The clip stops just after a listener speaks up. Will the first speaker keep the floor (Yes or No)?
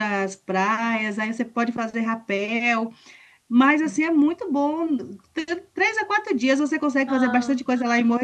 Yes